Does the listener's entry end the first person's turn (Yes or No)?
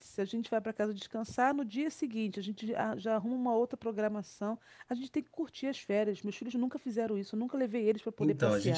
Yes